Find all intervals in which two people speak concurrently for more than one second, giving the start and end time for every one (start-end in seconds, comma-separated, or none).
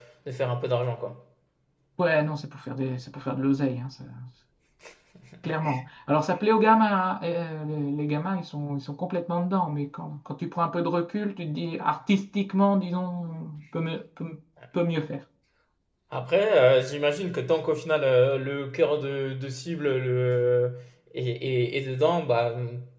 none